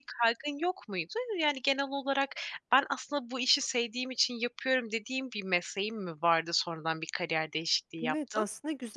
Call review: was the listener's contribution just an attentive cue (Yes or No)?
No